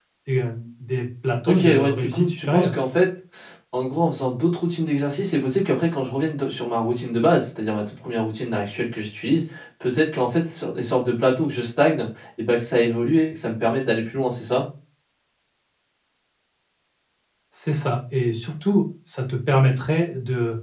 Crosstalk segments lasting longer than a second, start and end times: 1.5-2.8

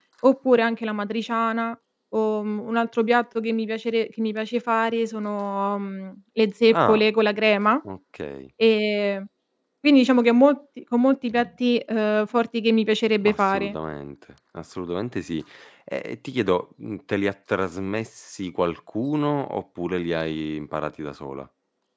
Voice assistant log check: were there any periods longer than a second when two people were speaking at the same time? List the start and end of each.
none

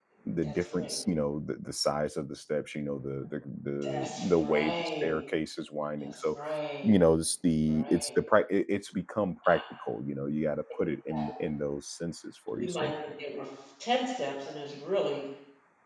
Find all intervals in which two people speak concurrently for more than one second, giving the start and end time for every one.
3.8-5.0

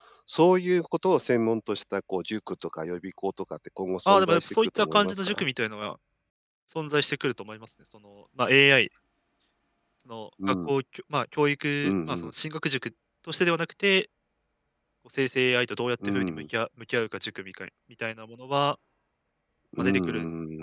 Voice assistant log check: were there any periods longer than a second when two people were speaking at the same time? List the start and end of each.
4.0-5.4

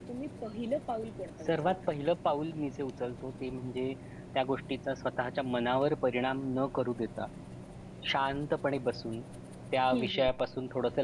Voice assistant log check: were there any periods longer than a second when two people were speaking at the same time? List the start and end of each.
none

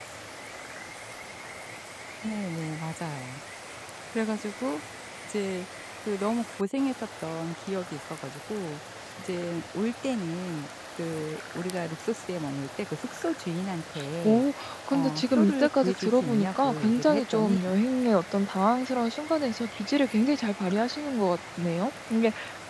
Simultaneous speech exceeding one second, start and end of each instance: 14.9-17.6

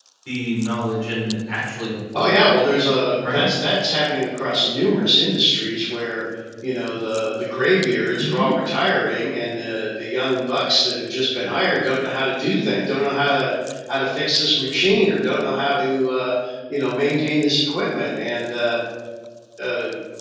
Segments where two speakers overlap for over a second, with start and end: none

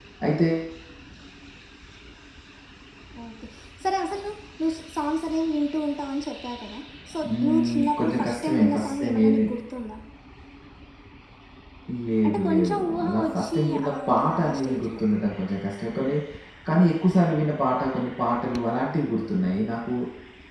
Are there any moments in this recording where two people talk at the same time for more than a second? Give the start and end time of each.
7.3-9.4, 12.3-15.0

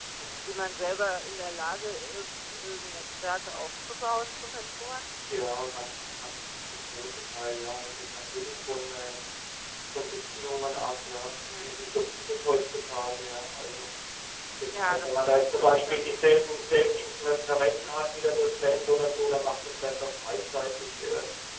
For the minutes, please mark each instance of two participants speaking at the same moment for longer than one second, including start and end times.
14.7-16.4

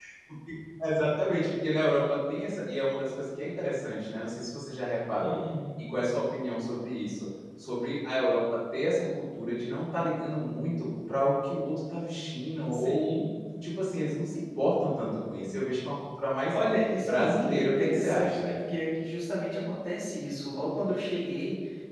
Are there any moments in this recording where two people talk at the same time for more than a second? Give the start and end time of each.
17.0-18.4

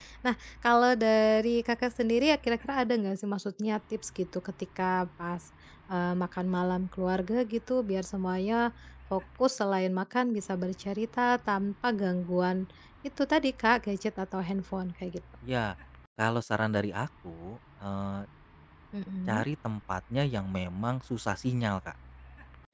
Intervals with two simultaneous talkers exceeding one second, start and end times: none

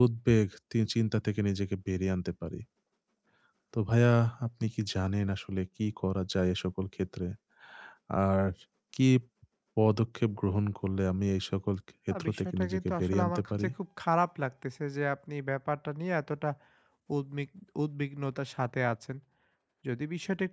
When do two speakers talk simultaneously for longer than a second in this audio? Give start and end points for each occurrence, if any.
12.1-13.7

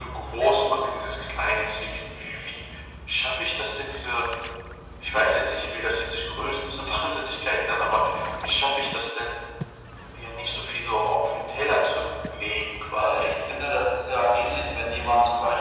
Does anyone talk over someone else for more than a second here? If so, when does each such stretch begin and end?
none

